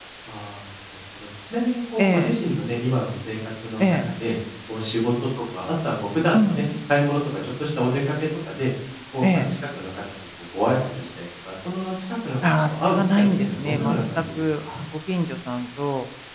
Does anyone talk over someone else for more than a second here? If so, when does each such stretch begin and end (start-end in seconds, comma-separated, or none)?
12.7-13.9